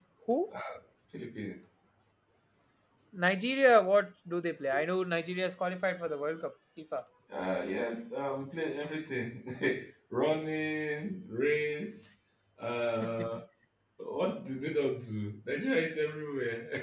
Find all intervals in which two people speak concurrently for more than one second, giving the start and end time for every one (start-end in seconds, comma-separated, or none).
none